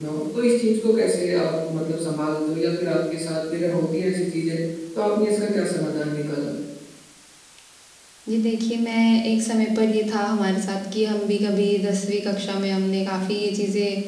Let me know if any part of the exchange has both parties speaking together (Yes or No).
No